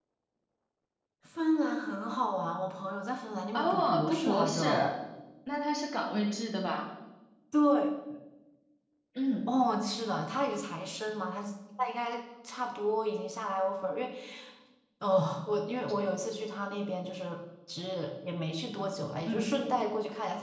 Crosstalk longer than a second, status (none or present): present